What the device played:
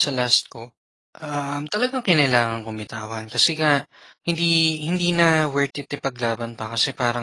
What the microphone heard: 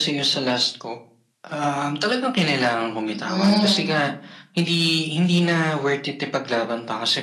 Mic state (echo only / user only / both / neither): both